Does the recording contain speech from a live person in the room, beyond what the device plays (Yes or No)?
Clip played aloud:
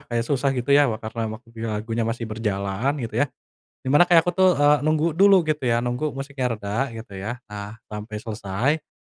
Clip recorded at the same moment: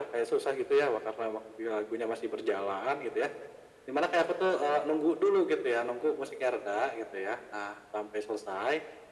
No